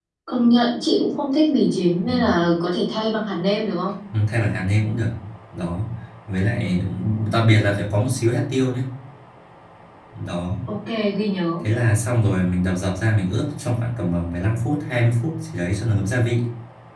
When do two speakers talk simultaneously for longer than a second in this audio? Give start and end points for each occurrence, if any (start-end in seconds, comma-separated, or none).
none